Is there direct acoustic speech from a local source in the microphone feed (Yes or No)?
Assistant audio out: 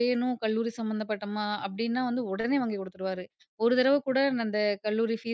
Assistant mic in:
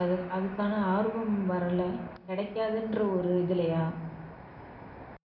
Yes